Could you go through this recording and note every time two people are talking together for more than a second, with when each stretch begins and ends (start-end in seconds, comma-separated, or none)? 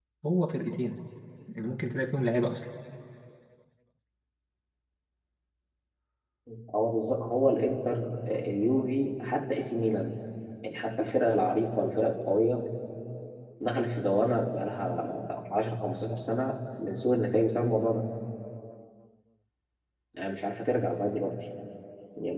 none